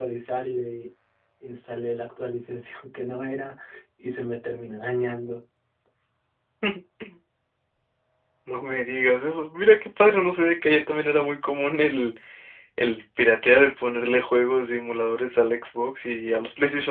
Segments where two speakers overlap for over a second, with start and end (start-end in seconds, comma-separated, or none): none